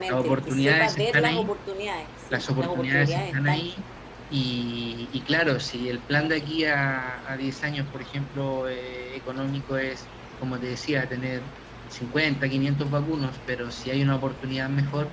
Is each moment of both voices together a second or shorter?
No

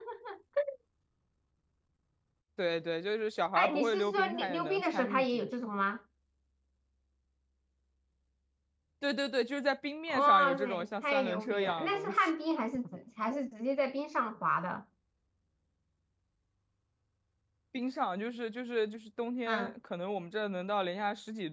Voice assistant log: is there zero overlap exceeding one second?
No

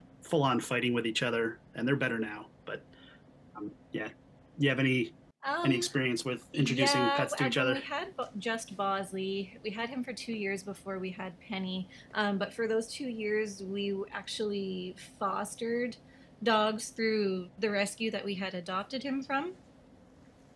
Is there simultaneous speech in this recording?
Yes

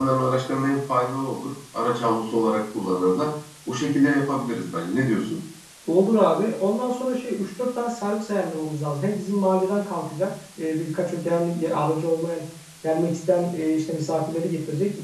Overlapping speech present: No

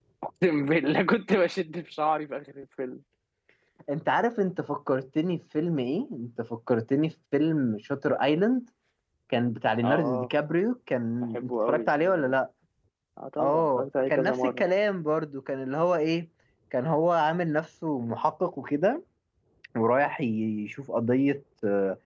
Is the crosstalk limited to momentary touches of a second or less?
No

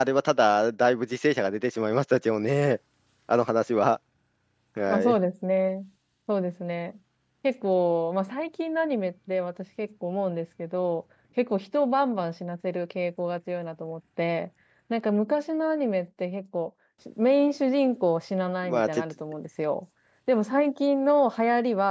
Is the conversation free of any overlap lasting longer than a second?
Yes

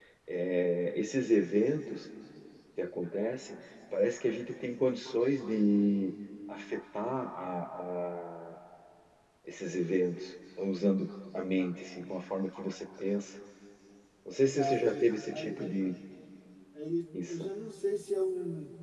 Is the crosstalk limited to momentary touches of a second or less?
No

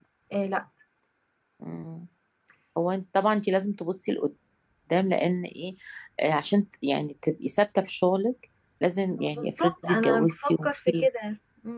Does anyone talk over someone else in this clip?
Yes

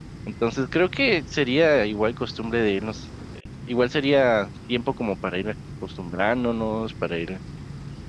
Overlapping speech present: No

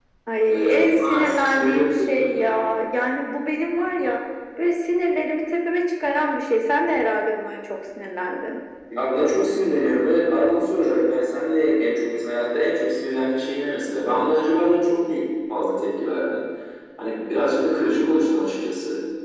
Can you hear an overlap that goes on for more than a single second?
Yes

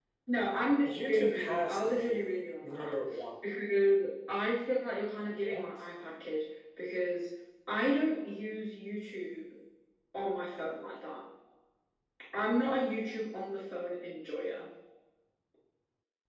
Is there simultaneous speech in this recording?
Yes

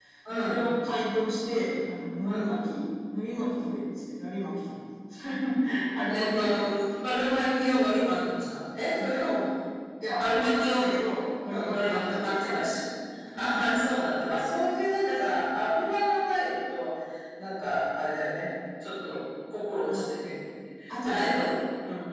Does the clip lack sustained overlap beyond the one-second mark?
No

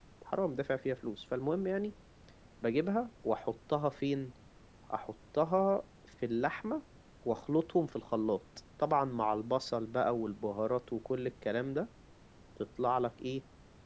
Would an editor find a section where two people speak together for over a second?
No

